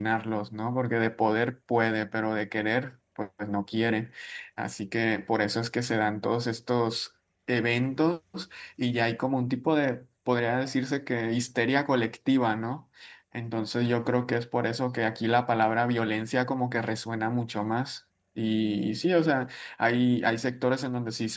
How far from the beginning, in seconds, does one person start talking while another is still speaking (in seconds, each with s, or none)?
none